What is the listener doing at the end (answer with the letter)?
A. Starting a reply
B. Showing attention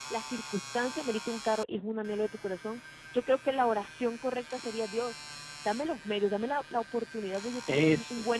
B